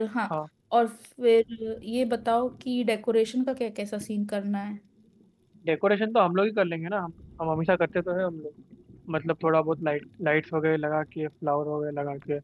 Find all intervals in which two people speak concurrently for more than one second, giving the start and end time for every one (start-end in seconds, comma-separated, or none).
none